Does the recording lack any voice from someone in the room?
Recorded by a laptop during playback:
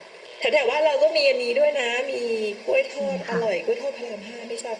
No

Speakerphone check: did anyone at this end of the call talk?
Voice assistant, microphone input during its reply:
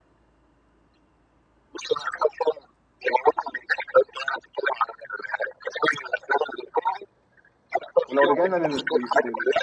Yes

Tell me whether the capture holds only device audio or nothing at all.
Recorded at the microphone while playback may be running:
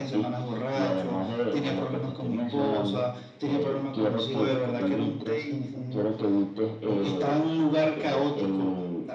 No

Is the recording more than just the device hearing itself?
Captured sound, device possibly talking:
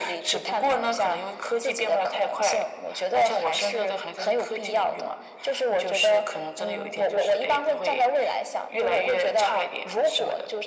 No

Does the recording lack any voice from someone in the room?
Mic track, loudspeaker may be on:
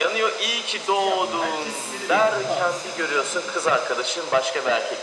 No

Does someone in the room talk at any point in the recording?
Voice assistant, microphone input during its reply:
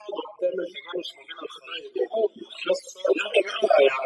No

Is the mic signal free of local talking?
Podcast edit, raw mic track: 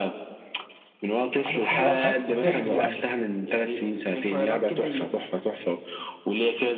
No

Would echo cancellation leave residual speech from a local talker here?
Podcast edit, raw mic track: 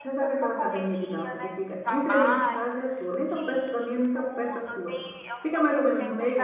Yes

